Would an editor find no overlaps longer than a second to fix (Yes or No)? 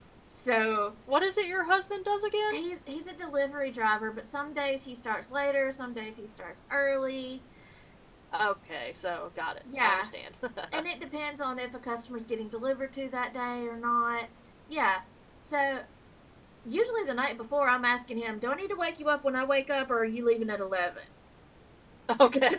Yes